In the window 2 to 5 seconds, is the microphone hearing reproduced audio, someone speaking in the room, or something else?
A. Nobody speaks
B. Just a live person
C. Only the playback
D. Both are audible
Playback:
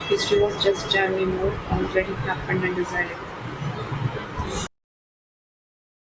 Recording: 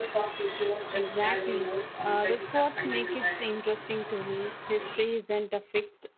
D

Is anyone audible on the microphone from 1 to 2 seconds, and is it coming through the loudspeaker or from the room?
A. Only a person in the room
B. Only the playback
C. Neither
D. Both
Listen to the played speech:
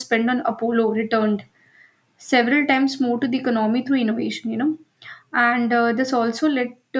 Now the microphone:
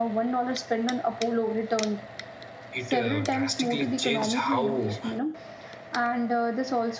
B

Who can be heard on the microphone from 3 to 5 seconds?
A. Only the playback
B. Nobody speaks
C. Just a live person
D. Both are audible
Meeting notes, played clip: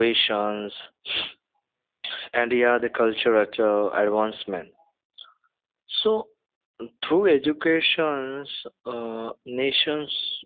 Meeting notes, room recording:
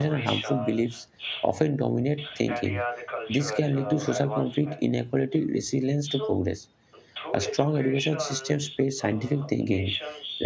D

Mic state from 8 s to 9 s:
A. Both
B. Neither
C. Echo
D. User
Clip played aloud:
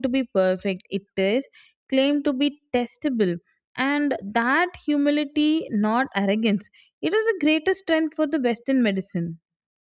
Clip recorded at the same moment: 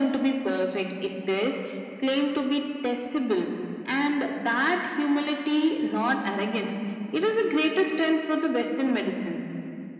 C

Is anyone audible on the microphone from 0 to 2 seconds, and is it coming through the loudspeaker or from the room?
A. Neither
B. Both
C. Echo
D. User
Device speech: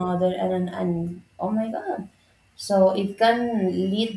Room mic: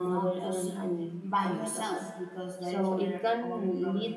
B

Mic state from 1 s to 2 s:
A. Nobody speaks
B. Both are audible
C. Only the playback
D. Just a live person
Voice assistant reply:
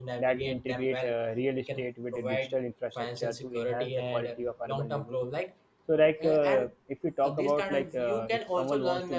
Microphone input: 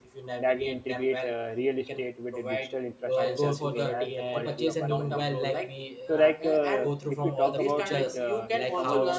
C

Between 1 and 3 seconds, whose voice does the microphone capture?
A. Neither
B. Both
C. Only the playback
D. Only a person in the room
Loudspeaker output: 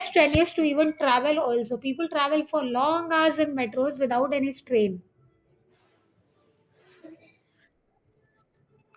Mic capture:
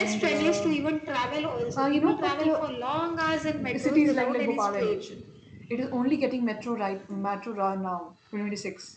B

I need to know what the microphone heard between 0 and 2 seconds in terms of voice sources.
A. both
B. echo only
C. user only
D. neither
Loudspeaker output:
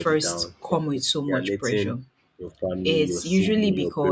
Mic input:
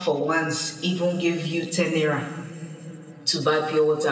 C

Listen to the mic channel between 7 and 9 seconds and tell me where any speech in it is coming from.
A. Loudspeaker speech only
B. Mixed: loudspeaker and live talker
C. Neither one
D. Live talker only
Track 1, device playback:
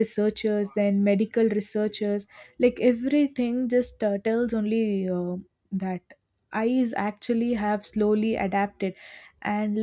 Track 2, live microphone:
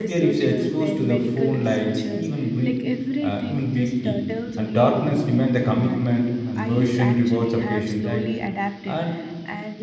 B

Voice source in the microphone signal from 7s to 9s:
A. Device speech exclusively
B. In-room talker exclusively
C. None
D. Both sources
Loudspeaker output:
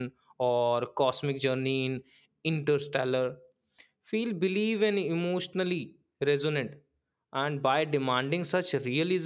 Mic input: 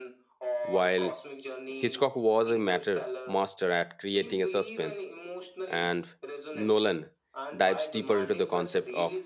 D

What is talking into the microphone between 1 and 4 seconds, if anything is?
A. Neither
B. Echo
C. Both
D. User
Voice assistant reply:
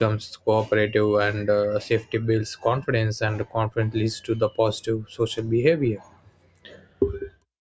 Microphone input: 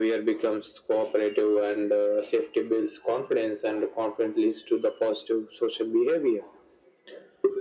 B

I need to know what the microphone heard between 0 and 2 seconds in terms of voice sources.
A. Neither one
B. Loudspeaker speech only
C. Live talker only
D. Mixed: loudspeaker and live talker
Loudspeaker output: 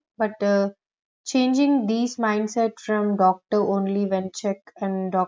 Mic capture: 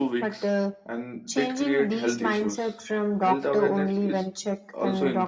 D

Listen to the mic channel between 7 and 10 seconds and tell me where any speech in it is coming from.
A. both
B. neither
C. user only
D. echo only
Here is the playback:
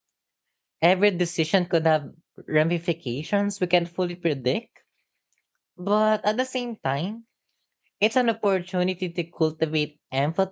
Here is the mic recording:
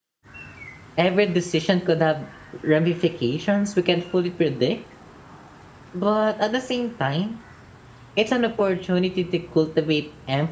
D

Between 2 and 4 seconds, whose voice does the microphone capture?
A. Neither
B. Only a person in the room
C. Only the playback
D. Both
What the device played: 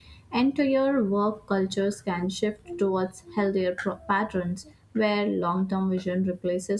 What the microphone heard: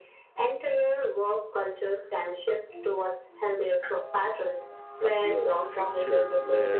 C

